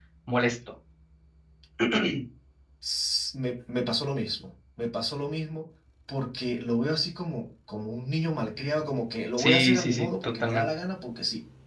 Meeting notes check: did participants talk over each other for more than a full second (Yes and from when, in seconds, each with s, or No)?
Yes, from 9.4 s